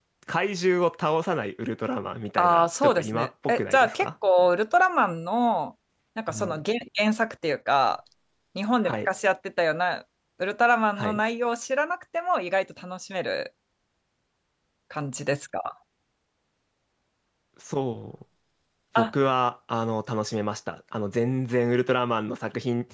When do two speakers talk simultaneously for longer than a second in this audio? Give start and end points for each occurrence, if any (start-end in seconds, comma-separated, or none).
2.4-4.1